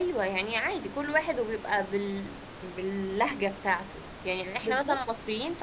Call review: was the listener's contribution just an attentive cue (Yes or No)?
Yes